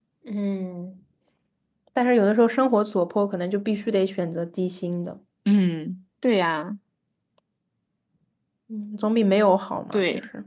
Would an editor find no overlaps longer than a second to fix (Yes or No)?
Yes